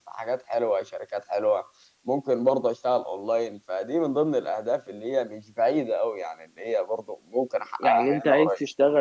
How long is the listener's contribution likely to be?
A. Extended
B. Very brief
A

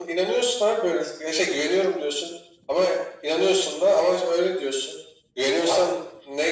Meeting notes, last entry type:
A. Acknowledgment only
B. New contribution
A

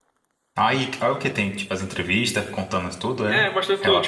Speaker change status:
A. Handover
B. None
A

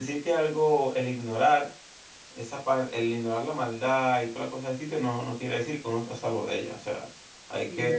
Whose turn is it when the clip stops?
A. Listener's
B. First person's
A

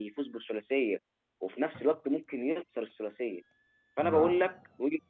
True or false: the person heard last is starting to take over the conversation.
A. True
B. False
B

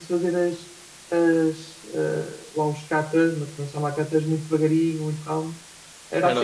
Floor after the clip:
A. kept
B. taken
B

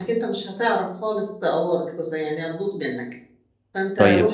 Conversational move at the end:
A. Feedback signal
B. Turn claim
A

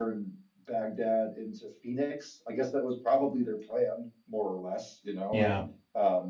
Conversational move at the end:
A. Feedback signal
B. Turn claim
A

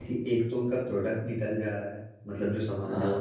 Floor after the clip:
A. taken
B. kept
B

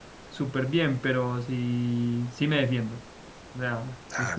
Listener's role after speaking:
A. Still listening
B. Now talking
A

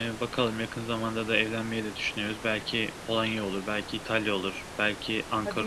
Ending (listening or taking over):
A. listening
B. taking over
B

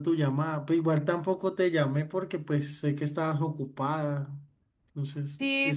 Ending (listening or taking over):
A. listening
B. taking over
B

